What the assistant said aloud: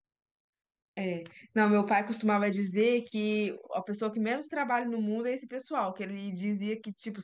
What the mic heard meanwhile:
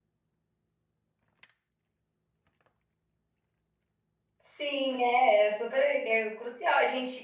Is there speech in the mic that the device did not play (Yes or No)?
Yes